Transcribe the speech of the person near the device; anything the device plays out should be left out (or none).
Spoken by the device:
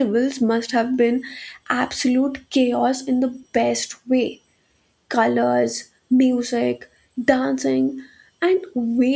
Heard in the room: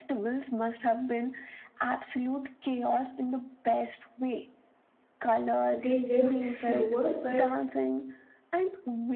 they lived slower, but